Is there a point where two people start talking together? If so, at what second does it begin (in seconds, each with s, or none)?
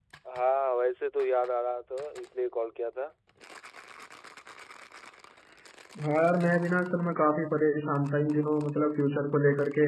none